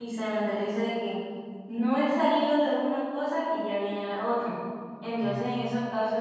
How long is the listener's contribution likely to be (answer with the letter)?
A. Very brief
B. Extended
A